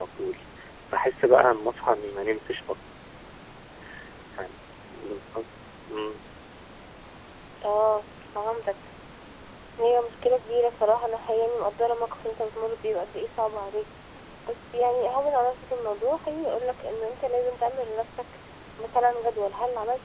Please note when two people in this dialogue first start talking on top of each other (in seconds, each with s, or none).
none